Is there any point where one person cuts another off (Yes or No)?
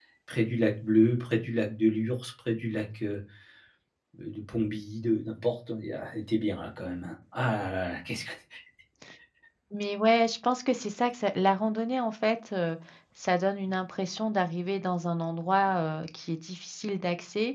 No